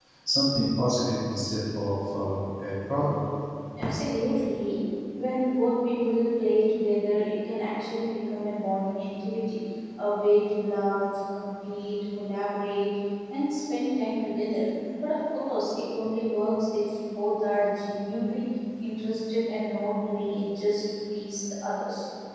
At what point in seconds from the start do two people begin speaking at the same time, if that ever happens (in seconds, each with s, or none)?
none